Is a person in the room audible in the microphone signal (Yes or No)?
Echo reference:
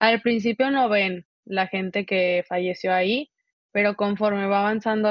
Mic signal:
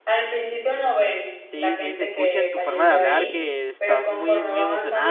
Yes